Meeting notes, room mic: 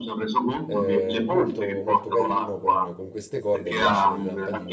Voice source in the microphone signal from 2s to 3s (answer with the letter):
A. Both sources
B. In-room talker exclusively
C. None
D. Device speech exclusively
A